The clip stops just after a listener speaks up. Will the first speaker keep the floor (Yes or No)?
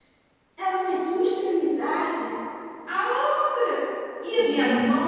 Yes